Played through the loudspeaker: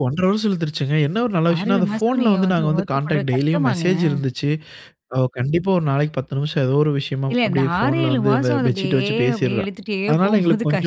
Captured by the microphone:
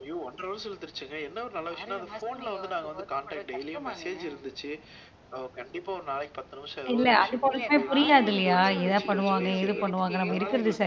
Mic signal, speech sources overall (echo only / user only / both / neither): both